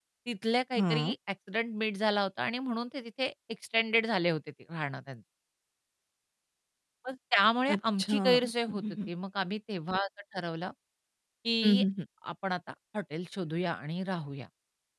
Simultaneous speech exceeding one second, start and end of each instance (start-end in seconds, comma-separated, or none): 7.7-9.1